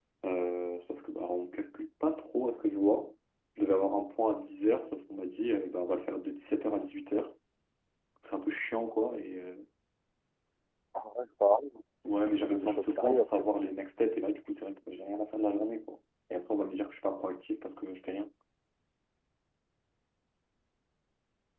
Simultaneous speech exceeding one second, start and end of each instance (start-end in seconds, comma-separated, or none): 12.4-13.7